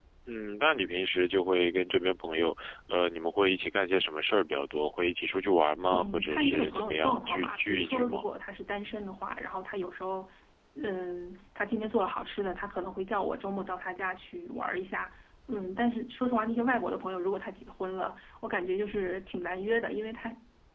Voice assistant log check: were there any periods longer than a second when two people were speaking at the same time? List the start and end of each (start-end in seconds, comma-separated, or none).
5.9-8.2